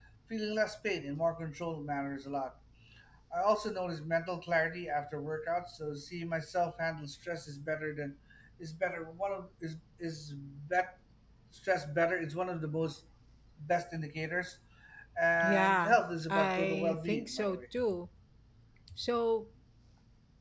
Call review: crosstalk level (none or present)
present